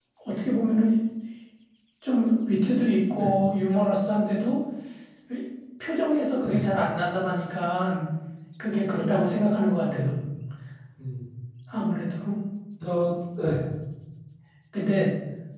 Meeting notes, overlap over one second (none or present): none